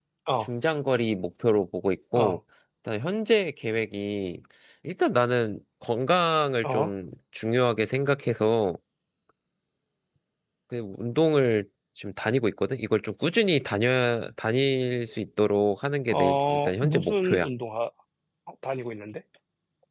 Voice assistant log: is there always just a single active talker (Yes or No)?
No